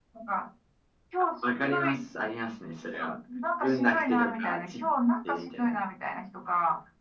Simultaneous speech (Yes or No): Yes